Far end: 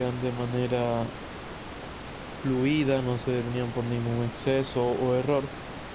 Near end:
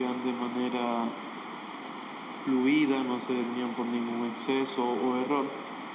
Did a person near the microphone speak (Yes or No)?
No